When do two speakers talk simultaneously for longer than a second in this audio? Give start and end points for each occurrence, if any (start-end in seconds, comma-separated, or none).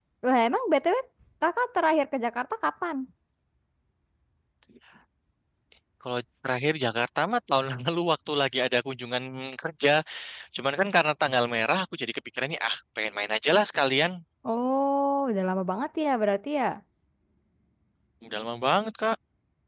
none